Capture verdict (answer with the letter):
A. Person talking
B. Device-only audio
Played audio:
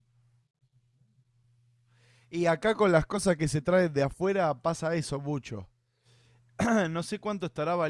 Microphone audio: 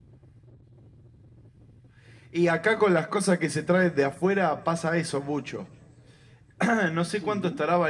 A